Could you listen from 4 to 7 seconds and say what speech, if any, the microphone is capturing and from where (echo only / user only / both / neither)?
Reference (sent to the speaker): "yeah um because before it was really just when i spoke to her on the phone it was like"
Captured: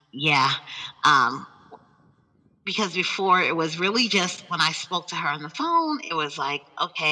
echo only